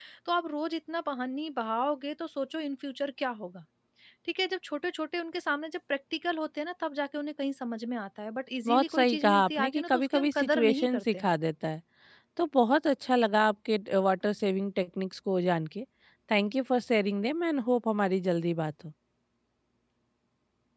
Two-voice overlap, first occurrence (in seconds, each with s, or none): 8.6 s